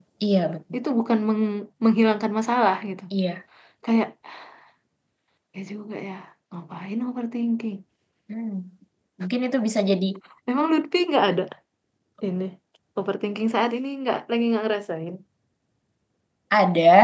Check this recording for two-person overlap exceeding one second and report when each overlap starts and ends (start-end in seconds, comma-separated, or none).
none